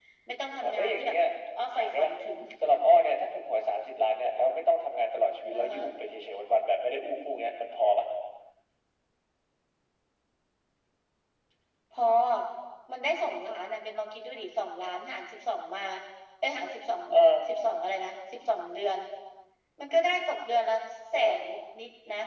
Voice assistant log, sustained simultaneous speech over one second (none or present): none